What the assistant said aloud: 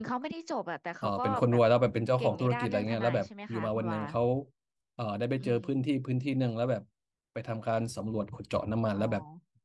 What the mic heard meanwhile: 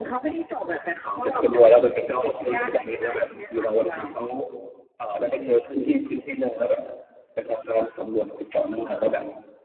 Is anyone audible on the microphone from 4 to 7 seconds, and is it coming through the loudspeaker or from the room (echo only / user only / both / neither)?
echo only